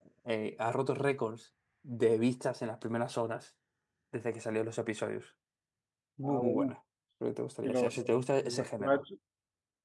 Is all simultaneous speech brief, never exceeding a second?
No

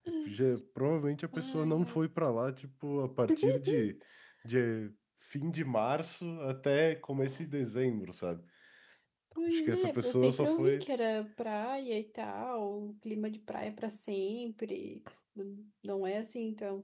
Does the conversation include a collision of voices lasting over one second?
Yes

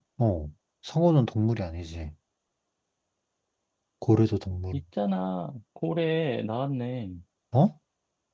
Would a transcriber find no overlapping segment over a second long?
Yes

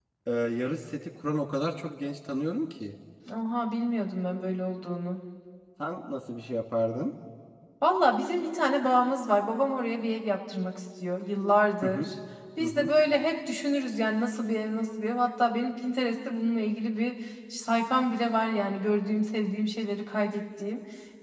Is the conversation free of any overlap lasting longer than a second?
Yes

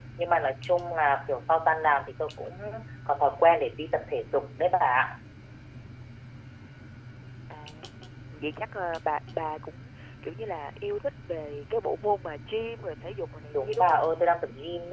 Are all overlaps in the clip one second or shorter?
Yes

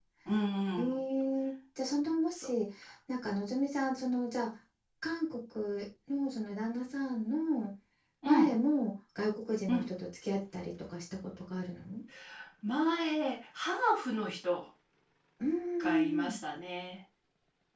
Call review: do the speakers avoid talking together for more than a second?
Yes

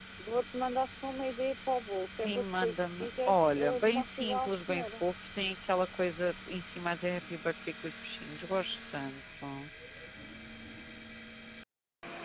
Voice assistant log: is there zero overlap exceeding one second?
No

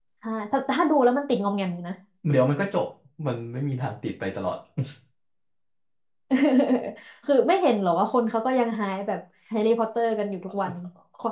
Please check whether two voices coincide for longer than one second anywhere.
No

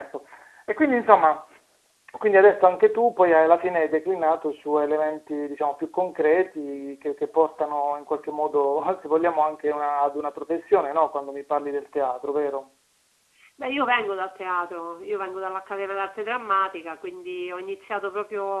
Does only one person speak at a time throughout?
Yes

